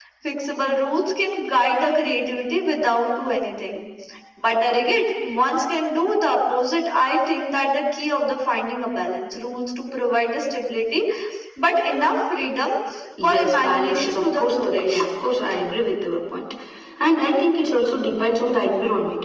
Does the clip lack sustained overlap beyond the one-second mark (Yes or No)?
No